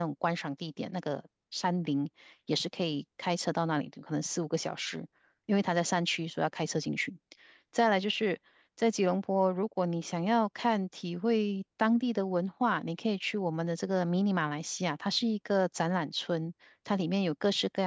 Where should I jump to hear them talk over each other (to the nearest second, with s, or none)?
none